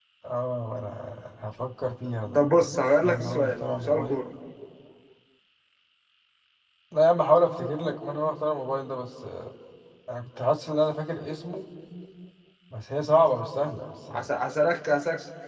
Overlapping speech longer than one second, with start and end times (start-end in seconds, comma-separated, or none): 2.3-4.2